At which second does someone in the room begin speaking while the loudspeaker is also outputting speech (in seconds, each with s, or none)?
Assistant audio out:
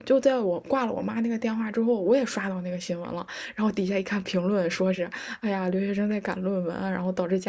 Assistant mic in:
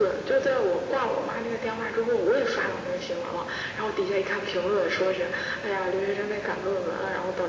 none